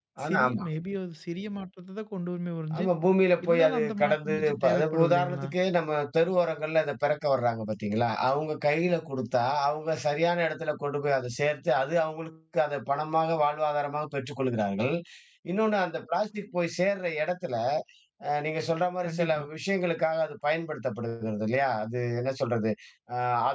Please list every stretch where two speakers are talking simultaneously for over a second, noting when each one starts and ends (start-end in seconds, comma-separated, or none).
3.5-5.5